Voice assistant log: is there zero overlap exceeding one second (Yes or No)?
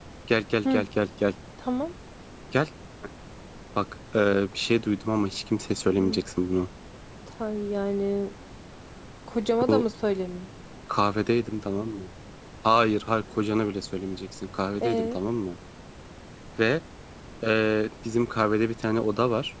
Yes